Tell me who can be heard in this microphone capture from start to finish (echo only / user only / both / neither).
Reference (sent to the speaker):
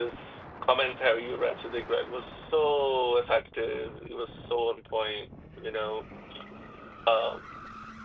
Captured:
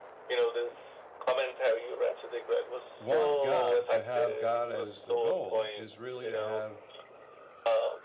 both